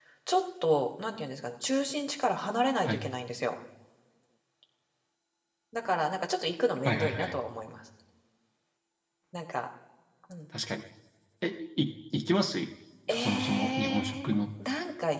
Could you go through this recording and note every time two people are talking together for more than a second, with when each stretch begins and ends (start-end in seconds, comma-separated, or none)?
13.2-14.4